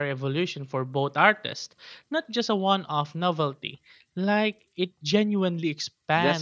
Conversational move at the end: taking over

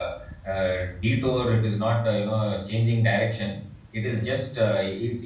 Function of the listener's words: listening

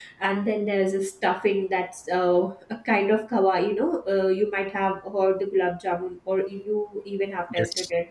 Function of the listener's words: listening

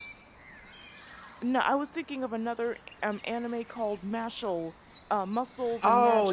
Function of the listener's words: taking over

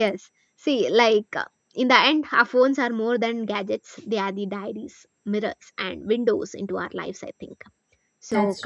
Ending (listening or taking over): listening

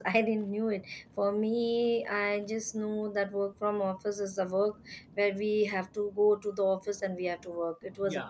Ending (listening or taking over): taking over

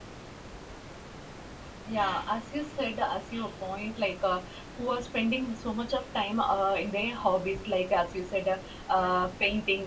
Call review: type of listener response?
listening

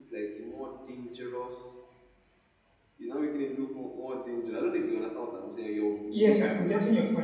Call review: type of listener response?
taking over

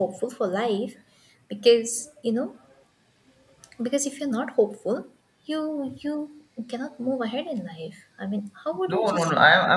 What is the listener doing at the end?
taking over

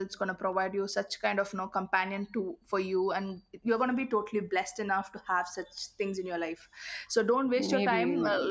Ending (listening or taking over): listening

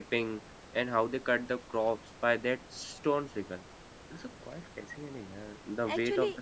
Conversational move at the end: taking over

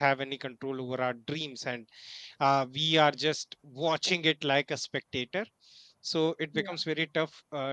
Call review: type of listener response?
listening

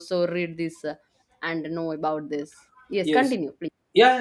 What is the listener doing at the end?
taking over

